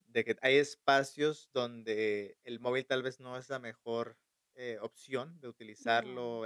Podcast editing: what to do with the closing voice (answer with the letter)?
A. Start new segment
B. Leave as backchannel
B